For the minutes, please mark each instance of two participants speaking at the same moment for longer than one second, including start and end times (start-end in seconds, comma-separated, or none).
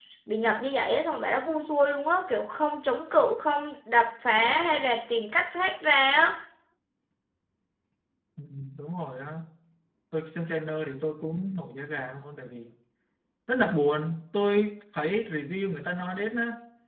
none